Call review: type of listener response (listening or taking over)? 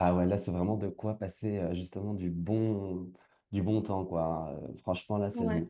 listening